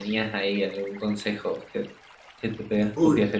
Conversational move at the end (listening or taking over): taking over